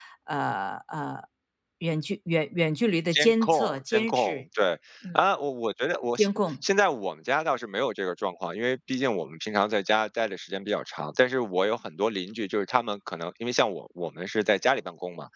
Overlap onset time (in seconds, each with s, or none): 3.1 s